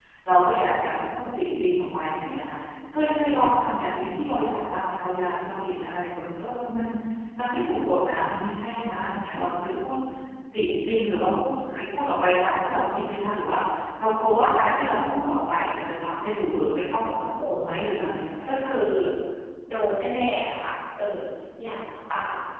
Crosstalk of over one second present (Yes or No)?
No